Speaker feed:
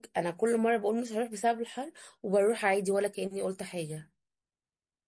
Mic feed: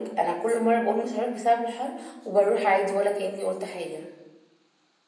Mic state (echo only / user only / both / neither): echo only